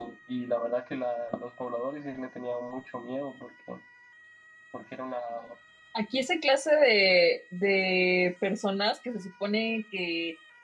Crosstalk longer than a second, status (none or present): none